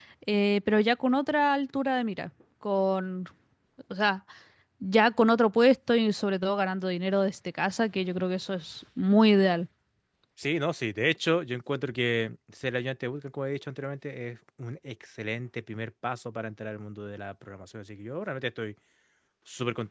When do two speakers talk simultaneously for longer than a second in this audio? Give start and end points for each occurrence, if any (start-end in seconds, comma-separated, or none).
none